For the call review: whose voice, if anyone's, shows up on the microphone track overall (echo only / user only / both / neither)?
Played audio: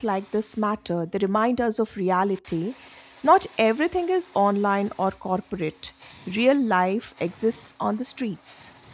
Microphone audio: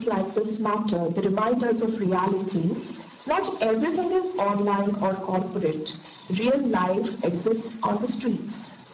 echo only